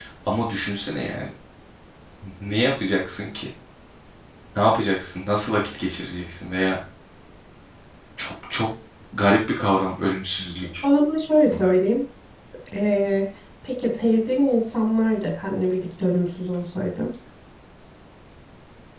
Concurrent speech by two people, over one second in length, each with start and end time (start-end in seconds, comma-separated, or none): none